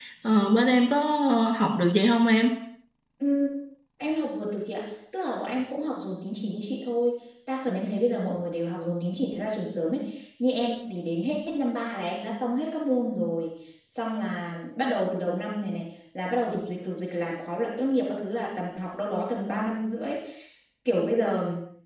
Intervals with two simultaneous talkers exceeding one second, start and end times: none

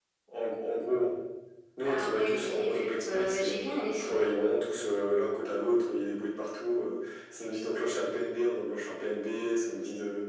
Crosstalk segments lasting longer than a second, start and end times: 1.9-4.2

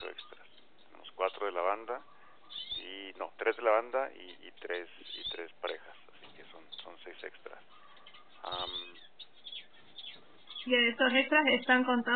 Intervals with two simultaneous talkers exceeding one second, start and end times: none

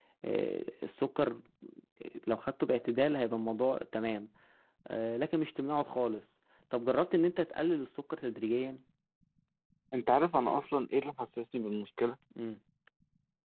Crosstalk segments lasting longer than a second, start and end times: none

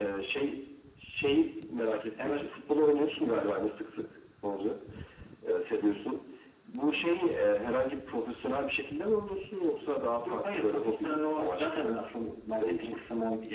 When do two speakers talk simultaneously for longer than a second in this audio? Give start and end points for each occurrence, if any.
10.3-11.9

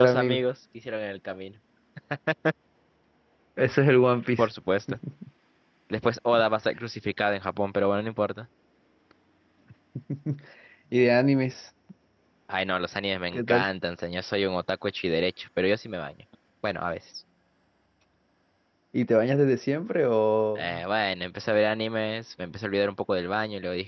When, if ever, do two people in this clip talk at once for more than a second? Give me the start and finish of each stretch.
none

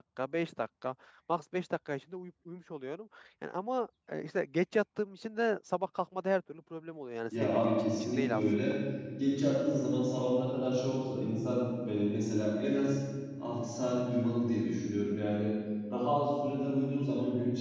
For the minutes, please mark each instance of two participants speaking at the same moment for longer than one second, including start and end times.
7.4-8.6

